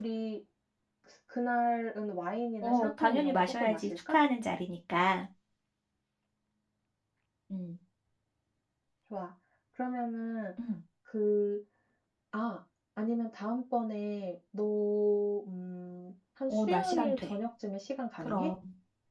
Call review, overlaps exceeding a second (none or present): present